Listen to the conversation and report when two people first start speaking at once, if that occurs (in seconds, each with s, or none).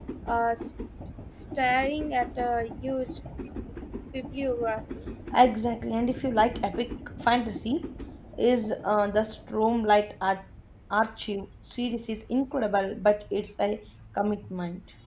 none